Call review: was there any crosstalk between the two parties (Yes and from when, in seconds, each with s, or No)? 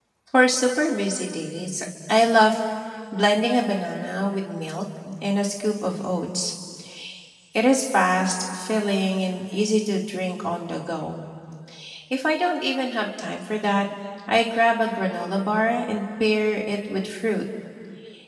No